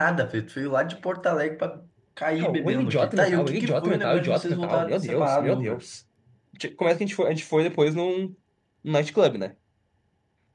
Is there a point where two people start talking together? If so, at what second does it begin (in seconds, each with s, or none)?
2.4 s